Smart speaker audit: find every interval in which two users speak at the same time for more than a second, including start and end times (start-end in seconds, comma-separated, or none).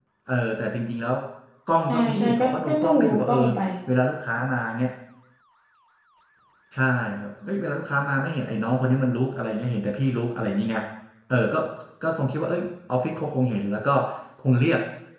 1.9-3.4